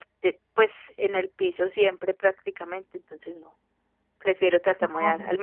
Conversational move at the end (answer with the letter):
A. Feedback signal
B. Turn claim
A